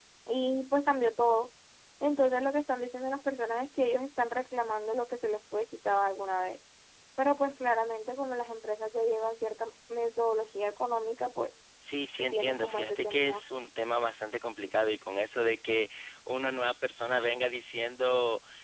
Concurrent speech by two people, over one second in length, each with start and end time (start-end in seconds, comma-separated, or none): 12.2-13.4